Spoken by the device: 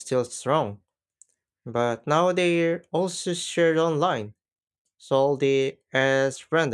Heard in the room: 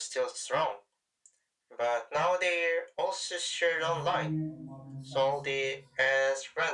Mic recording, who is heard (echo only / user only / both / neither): both